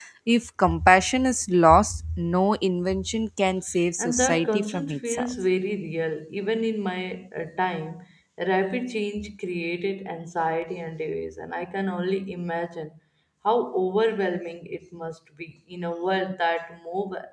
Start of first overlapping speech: 4.0 s

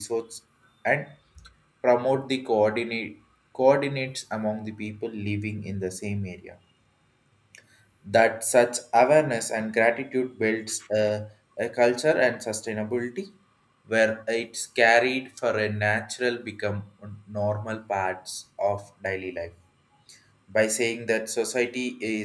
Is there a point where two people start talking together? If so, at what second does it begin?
none

